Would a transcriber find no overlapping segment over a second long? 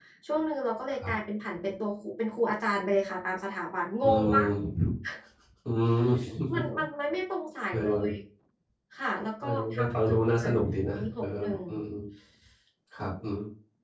No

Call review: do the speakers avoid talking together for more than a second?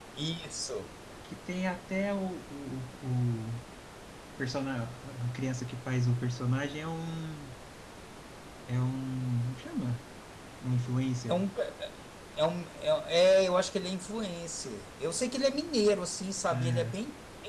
Yes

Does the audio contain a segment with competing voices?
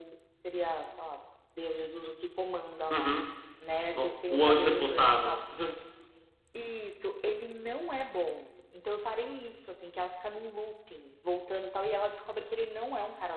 Yes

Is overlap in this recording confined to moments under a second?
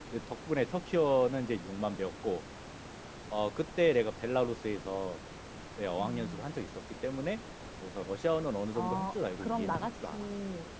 No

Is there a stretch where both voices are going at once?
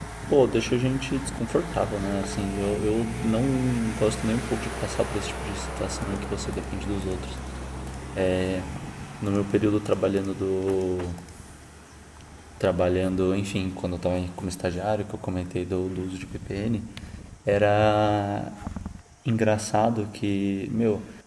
No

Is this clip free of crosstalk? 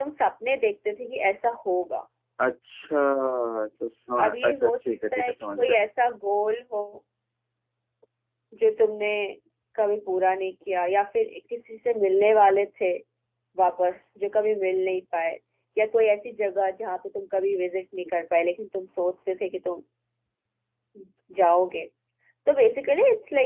No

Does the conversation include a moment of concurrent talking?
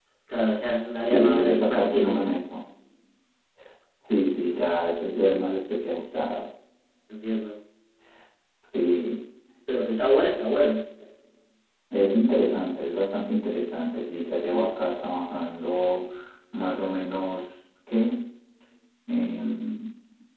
Yes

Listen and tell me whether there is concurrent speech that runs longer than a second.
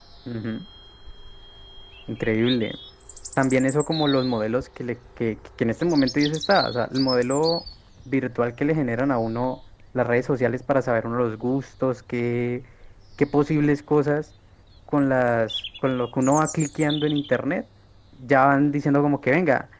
No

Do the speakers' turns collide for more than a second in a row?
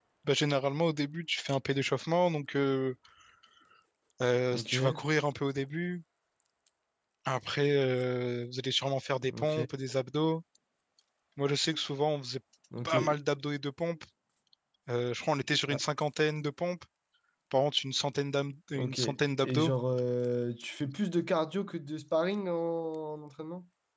No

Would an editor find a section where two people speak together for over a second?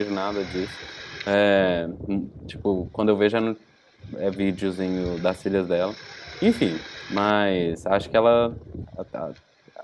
No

